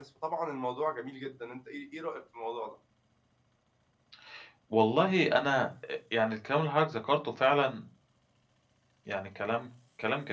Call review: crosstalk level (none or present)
none